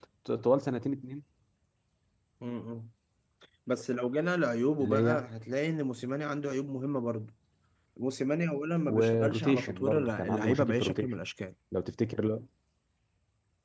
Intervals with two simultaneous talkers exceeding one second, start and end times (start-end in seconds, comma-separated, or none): 8.9-11.1